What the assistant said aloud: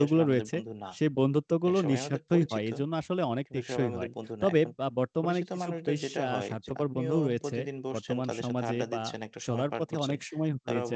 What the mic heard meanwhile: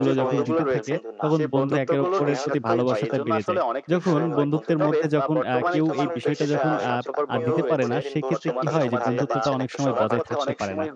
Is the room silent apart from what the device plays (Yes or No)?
No